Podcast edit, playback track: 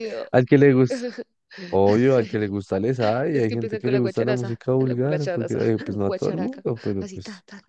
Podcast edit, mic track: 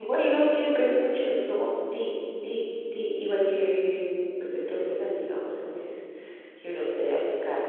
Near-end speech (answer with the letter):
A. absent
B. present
B